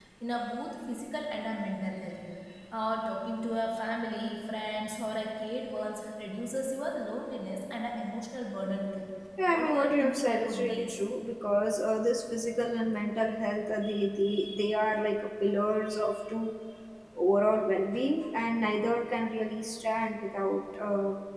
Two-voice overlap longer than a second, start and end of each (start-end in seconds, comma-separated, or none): 9.5-11.0